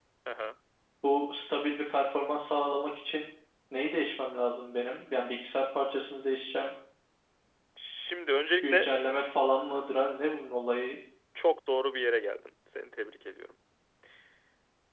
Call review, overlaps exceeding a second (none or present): none